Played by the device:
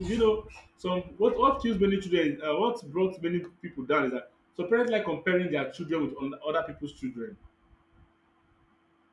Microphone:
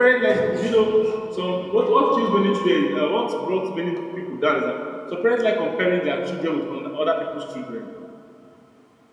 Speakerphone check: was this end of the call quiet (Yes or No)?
Yes